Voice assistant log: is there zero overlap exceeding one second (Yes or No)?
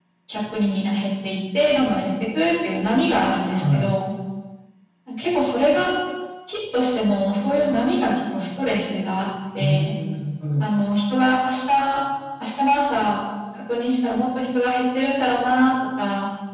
Yes